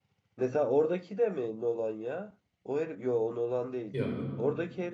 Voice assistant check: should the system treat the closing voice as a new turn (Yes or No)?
No